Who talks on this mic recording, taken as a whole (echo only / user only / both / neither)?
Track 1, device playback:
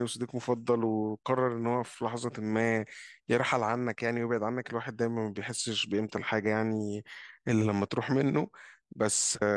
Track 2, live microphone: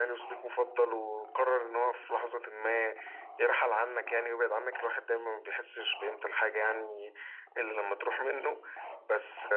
echo only